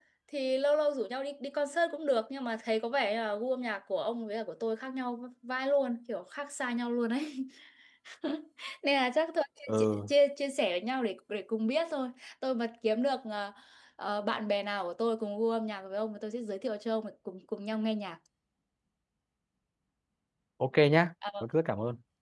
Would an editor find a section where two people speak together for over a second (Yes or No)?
No